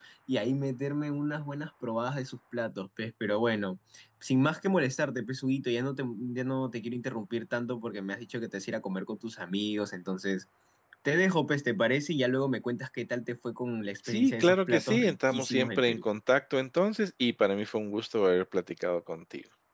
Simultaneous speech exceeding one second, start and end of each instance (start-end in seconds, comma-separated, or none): 14.1-16.0